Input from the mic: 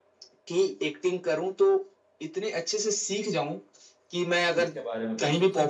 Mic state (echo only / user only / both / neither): both